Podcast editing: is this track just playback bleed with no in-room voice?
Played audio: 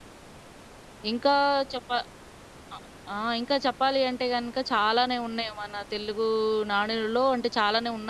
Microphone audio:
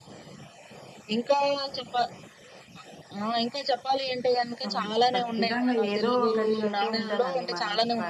No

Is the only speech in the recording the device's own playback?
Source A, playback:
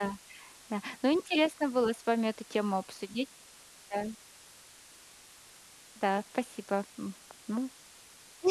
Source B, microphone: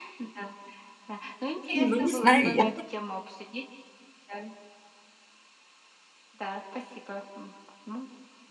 No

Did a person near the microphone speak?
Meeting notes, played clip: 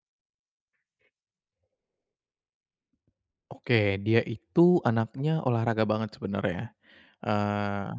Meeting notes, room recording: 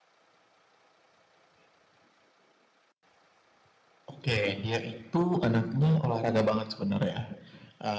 No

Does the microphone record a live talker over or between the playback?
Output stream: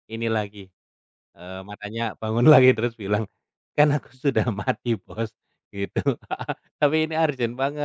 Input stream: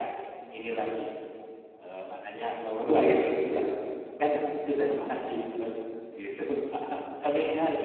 No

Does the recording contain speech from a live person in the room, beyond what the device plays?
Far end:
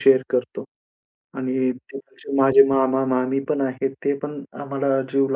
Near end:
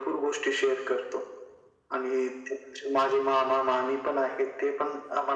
No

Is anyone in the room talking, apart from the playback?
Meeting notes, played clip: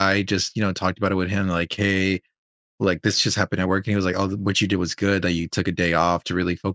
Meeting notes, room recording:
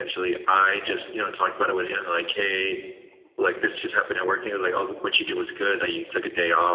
No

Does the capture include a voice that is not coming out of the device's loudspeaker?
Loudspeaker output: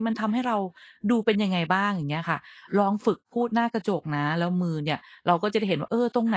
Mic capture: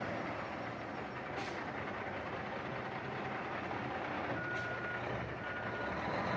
No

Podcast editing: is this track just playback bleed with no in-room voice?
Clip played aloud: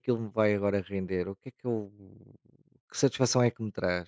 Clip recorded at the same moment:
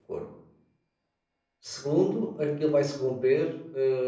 No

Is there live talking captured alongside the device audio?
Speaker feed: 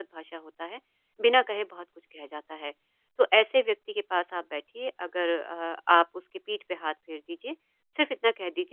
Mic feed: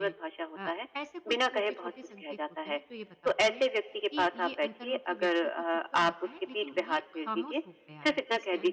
Yes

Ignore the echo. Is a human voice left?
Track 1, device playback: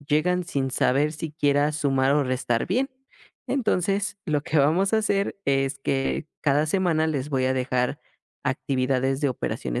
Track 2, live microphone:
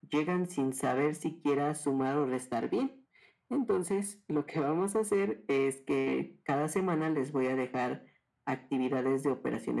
No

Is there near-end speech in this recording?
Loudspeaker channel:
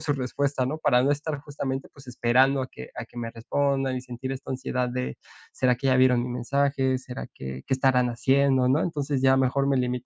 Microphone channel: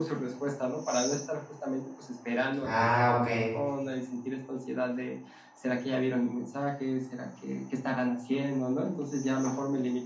Yes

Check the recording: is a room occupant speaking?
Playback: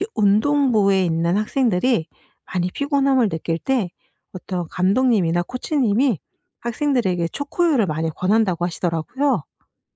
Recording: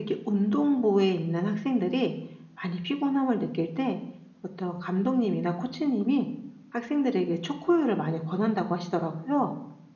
No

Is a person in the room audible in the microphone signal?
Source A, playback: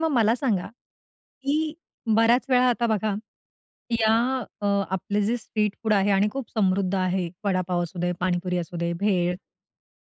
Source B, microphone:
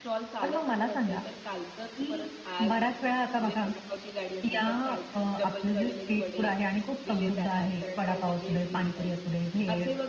Yes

